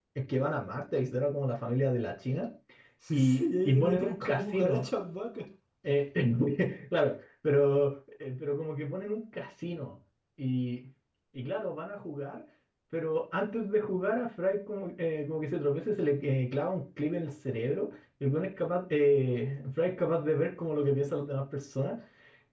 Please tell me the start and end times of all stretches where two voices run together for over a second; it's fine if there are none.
3.1-4.8

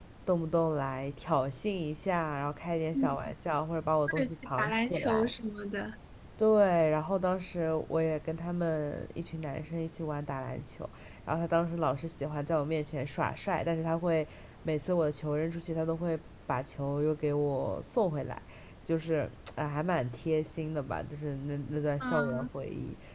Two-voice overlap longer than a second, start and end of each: 4.1-5.3

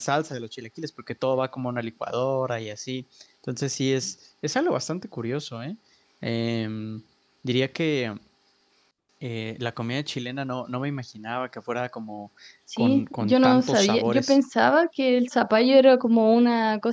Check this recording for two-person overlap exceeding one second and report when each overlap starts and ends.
12.8-14.4

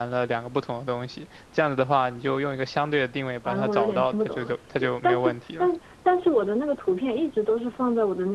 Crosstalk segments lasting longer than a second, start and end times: 3.5-5.7

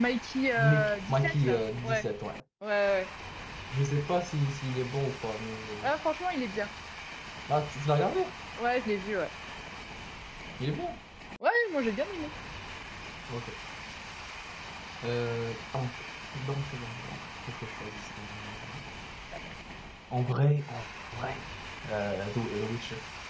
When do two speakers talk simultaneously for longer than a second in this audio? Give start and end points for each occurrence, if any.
0.6-2.1

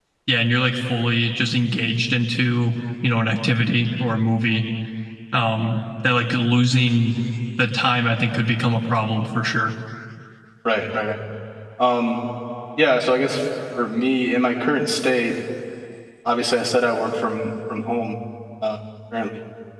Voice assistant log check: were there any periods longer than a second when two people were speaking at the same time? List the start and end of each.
none

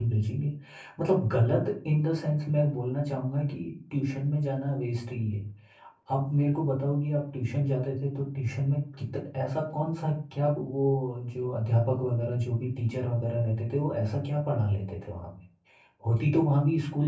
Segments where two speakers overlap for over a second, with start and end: none

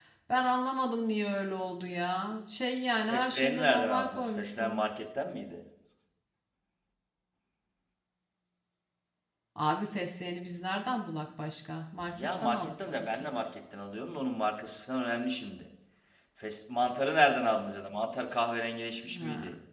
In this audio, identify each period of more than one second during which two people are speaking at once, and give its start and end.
3.1-4.8, 12.1-13.3

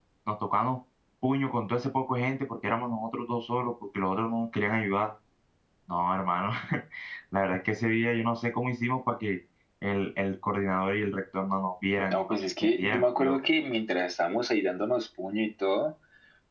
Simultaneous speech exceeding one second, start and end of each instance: 12.1-13.4

